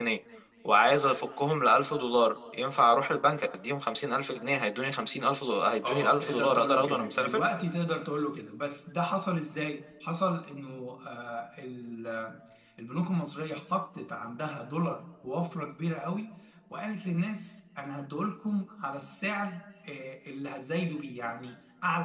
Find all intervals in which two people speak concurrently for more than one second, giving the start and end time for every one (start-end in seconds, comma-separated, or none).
5.9-7.4